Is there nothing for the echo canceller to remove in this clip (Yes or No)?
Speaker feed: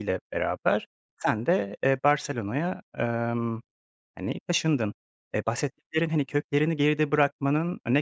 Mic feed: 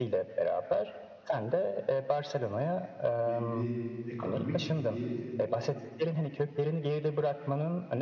No